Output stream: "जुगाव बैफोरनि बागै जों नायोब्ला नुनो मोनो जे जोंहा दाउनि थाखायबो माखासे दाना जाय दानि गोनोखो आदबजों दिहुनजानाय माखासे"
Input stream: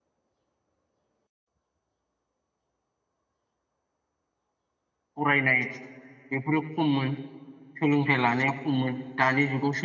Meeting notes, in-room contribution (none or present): present